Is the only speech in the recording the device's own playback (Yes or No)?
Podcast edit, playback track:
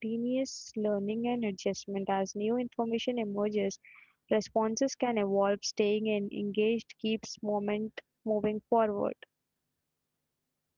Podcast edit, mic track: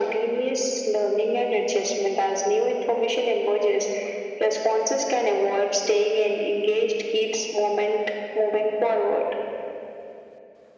Yes